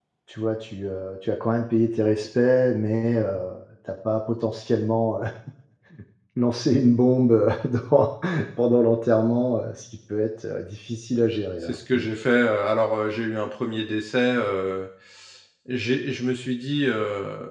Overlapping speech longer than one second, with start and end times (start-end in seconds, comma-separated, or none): none